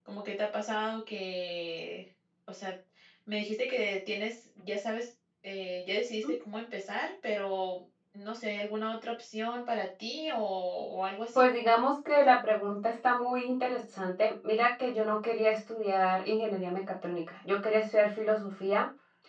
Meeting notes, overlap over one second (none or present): none